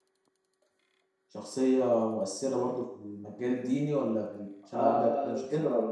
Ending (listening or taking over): taking over